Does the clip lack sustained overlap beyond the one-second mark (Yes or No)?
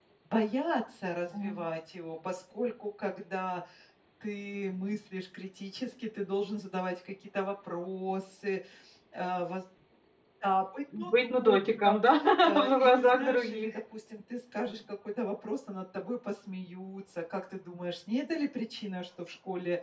No